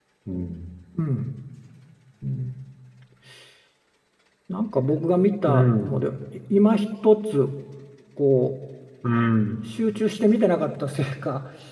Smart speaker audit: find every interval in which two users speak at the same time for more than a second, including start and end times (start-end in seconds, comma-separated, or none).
none